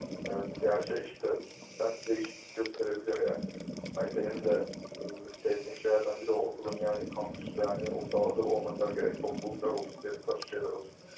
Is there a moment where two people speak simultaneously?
No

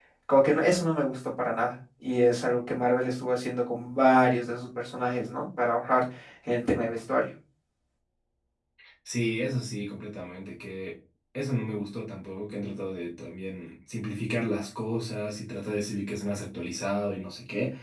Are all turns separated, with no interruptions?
Yes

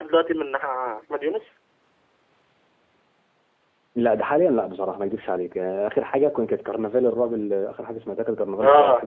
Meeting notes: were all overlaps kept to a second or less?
Yes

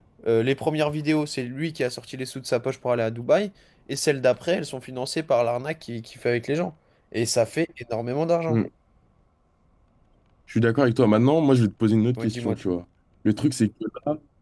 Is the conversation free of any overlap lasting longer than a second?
Yes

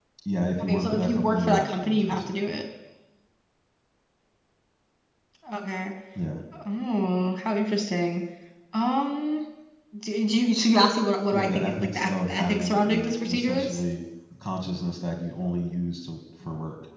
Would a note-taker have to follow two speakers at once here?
Yes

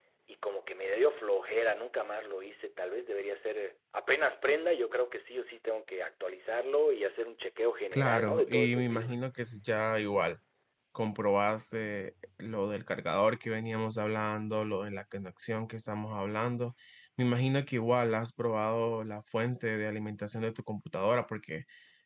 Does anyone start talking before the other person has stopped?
Yes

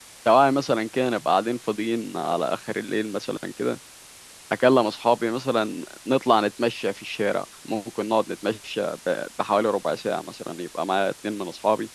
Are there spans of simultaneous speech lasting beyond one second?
No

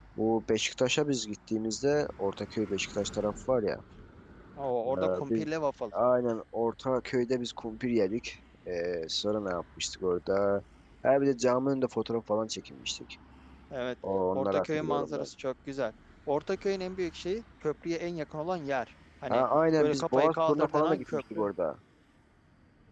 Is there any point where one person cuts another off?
Yes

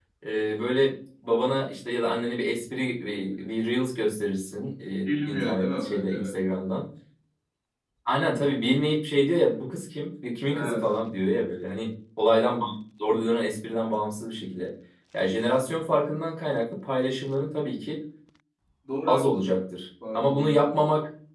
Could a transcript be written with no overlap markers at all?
No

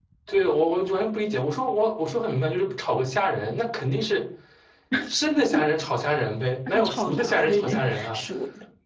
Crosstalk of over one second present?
Yes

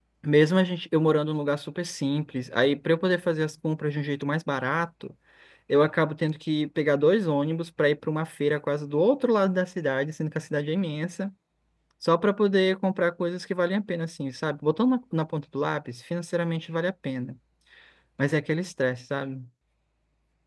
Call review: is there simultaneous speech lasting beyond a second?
No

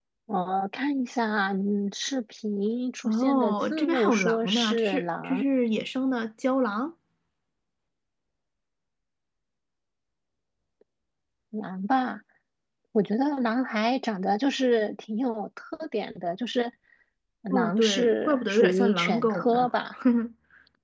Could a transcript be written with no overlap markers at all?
No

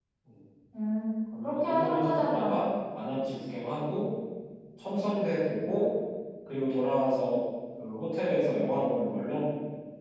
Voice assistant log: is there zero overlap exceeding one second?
No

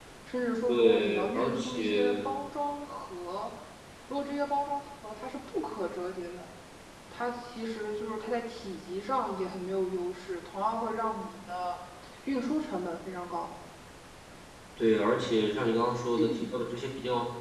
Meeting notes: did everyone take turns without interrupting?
No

